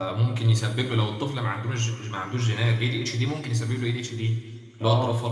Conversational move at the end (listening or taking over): taking over